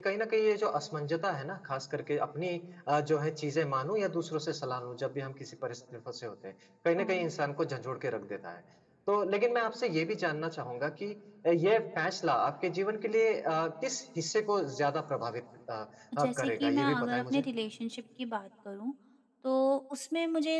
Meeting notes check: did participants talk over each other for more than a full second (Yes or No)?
Yes